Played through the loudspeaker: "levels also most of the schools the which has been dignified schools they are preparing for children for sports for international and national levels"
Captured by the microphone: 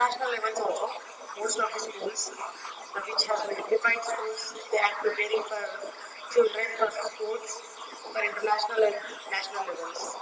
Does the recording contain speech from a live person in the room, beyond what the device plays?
No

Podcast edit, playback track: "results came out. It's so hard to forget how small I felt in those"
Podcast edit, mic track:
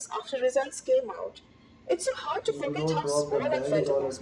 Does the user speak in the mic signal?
Yes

